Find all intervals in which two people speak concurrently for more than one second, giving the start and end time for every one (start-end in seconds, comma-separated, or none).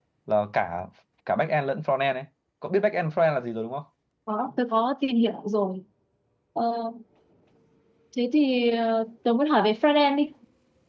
none